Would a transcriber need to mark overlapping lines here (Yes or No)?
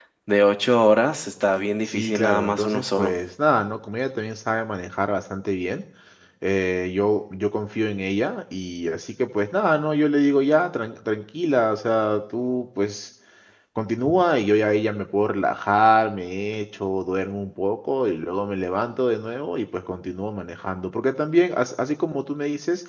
Yes